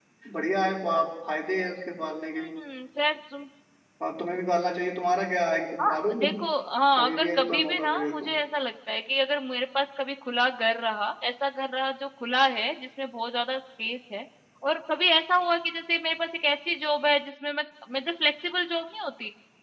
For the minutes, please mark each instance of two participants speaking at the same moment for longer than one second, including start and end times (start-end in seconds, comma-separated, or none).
7.0-8.3